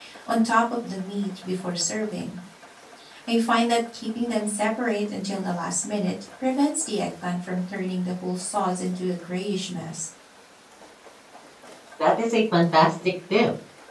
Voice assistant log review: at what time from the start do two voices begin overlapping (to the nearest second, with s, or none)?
none